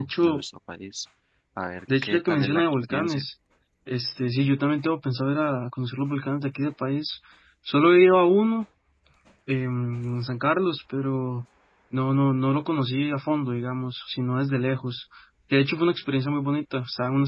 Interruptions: present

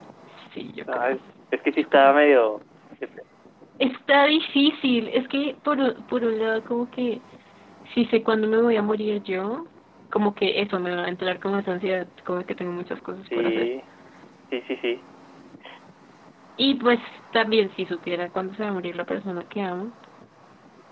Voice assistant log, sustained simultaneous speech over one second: none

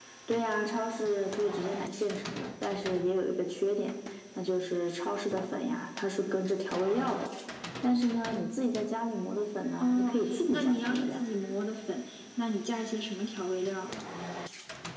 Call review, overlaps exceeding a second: present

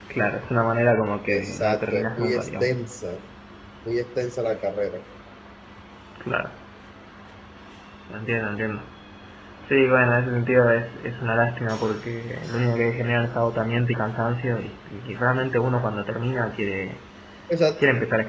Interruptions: present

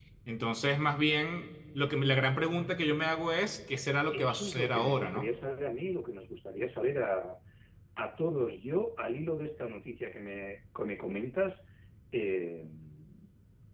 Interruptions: present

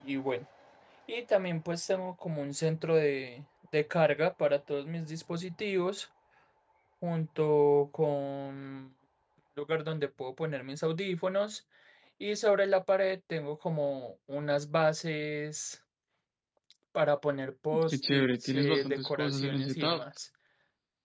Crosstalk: present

